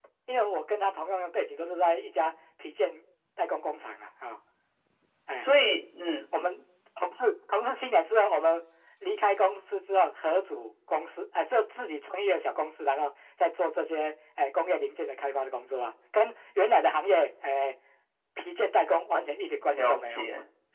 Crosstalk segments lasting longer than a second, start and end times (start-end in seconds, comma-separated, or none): none